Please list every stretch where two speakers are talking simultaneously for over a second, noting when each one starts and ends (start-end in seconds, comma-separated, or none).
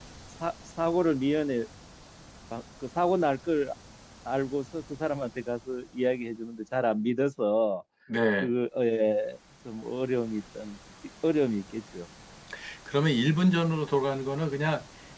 none